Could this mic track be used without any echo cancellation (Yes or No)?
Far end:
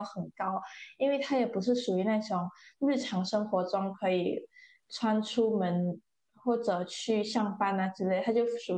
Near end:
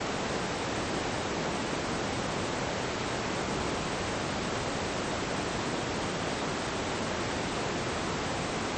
Yes